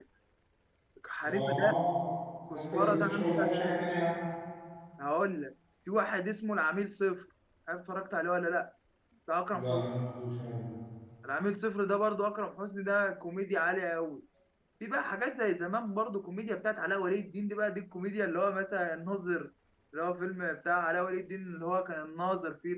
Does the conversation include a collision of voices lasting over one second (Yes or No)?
Yes